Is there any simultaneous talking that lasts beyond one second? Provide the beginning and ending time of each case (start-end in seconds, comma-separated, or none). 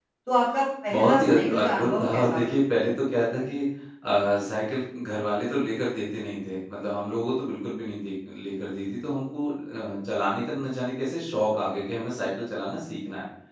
0.9-2.4